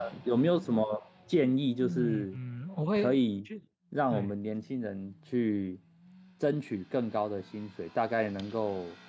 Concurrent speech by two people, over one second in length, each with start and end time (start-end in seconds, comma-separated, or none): none